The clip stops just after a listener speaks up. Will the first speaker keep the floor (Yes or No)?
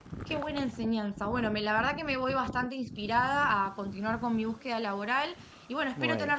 Yes